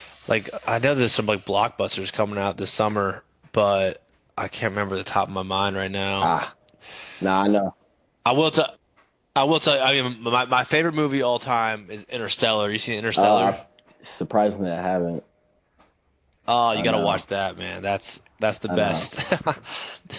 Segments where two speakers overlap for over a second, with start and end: none

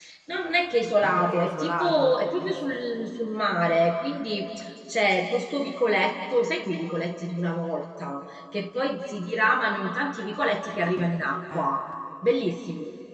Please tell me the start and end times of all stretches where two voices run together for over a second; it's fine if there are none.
1.0-2.8

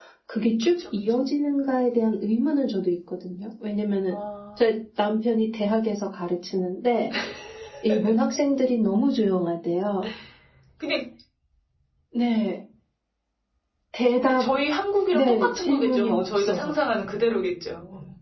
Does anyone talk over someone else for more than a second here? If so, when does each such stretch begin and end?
15.1-16.7

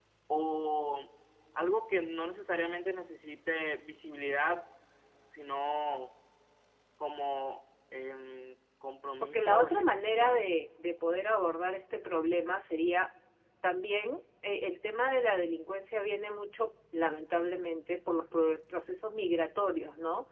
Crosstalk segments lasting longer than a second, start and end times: 9.2-10.5

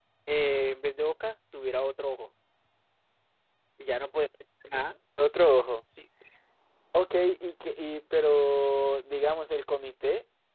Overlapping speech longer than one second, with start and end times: none

